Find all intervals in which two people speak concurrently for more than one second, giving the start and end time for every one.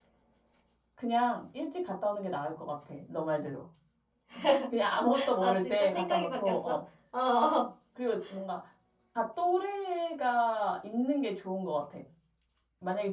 5.4-6.8

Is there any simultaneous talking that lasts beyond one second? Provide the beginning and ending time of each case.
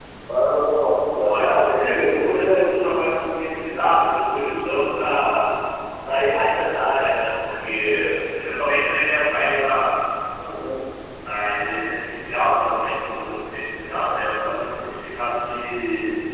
1.1-2.7

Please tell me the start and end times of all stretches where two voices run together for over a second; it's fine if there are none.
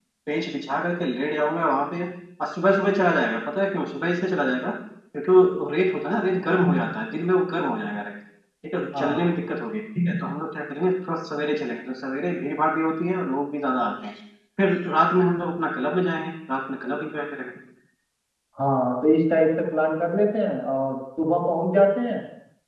none

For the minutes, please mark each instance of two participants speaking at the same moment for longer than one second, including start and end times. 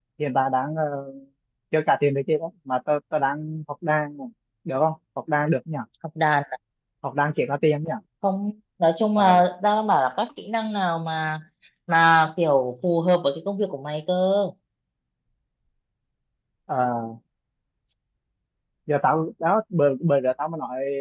none

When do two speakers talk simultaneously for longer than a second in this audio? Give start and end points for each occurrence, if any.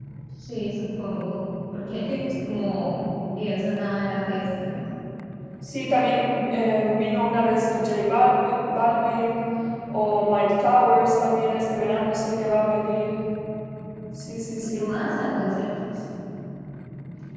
none

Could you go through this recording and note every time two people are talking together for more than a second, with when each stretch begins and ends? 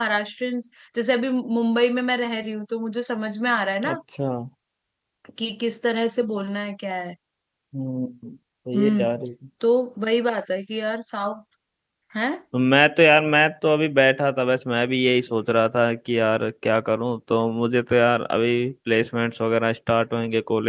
none

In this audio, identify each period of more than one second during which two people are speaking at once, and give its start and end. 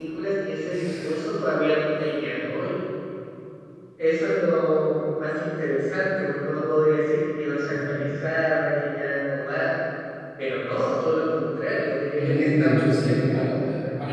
12.2-13.5

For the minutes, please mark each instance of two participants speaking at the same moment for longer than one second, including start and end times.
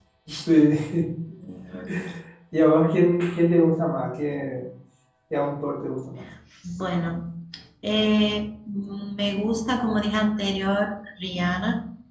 none

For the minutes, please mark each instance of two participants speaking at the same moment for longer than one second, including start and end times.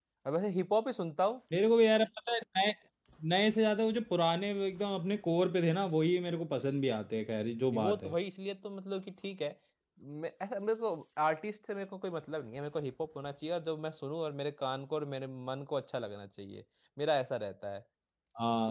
none

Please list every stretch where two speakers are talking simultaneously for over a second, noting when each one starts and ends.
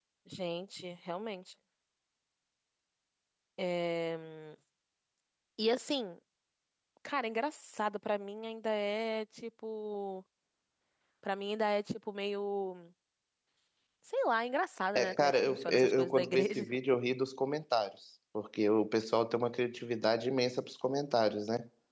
15.0-16.6

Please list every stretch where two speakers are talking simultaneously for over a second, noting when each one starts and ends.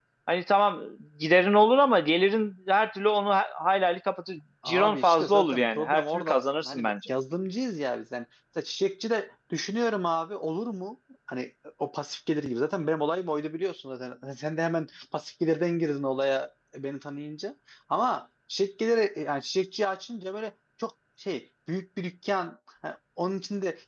4.7-6.9

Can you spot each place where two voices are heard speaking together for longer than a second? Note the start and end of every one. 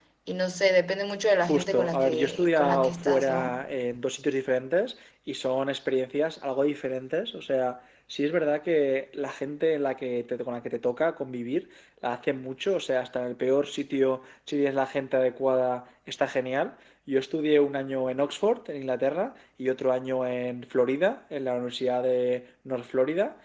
1.4-3.6

